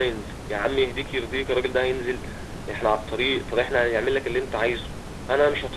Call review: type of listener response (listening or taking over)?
listening